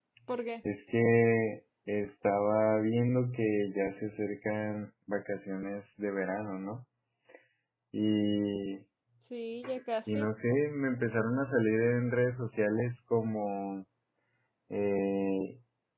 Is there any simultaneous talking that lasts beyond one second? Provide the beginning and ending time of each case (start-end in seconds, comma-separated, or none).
none